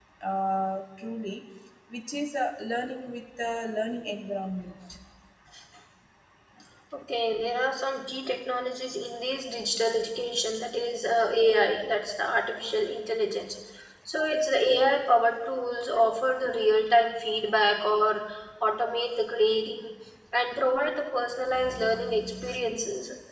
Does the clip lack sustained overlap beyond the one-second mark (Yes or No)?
Yes